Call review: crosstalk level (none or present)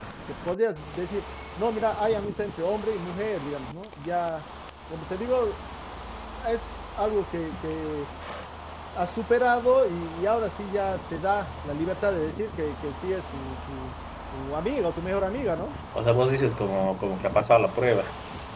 none